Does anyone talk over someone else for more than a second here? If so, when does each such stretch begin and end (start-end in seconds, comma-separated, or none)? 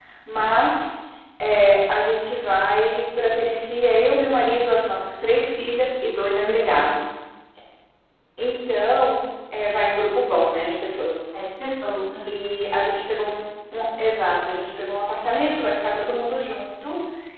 none